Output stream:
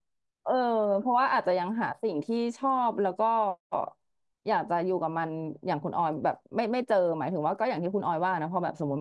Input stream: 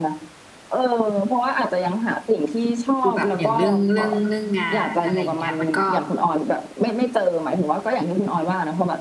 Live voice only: คือแบบอย่างเรื่องเรื่องเรื่องงานอะไรอย่างเงี้ยมันก็

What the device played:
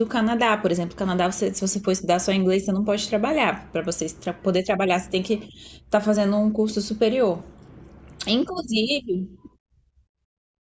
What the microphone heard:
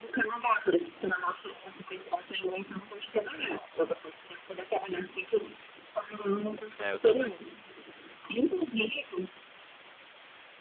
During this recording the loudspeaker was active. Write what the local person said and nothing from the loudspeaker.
É, eu também.

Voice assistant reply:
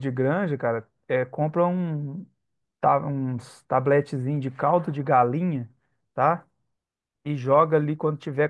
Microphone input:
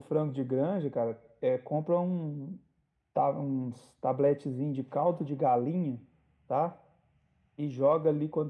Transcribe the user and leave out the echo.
none

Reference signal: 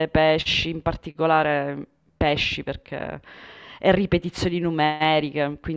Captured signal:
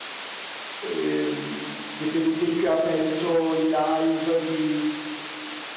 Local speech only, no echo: ehm, che per esempio ha aperto i live di,

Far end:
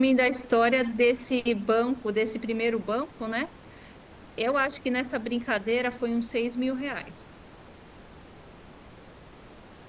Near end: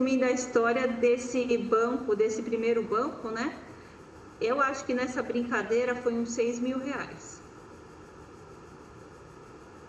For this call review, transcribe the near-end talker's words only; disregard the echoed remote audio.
none

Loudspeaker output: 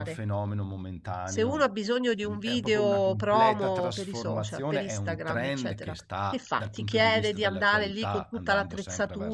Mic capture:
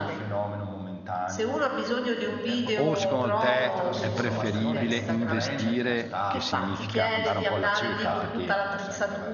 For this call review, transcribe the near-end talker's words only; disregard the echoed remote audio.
O secondo te è preferibile investire, che significa andare un po' alla cieca, perché

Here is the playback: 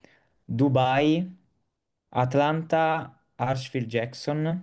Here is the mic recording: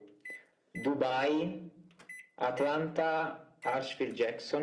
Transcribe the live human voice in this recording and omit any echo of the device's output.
none

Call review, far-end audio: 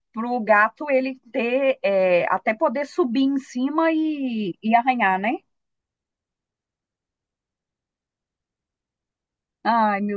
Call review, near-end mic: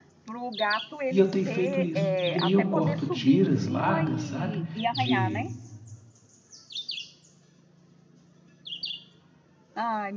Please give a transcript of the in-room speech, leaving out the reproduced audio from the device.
E eu tenho feito isso. E aí eu corto tiras largas, sabe? De,

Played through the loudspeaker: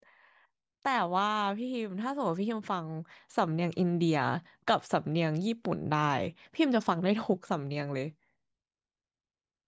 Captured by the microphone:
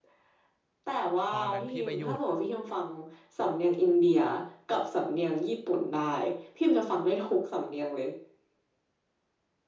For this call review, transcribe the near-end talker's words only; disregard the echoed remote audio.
ตอนนั้นพี่ไปอยู่

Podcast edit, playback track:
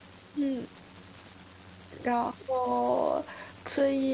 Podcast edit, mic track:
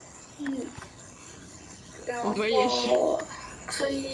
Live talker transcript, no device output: 我们也是

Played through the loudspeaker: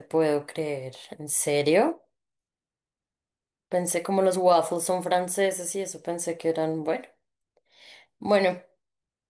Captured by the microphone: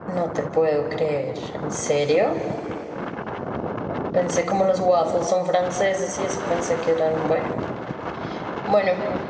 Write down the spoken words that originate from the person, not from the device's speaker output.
none

